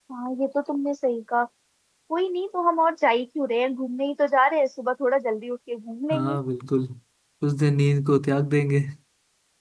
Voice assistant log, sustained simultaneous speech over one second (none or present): none